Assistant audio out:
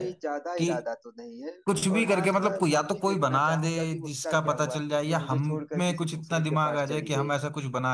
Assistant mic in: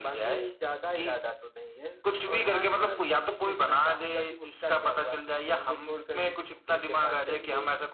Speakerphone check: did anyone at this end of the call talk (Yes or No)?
No